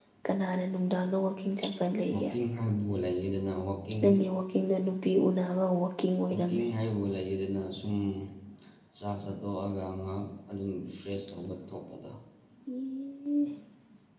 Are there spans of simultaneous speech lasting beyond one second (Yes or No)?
No